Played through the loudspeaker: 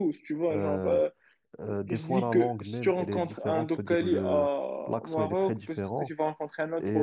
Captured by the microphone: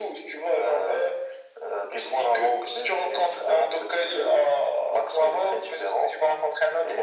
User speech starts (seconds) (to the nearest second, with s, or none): none